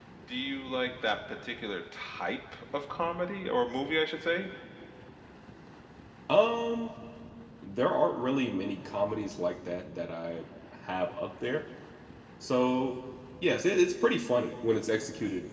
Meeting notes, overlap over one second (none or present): none